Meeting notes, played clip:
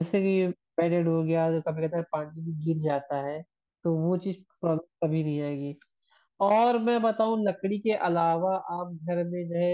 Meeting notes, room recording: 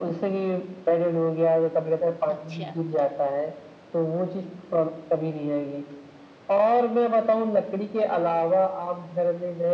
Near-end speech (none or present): present